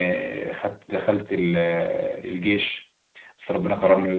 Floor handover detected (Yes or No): No